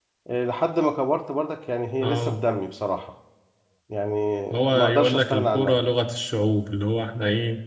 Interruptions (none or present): present